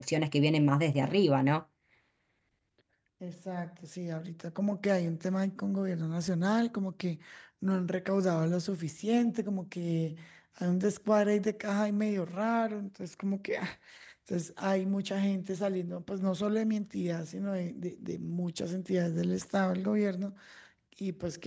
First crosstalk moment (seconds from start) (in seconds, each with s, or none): none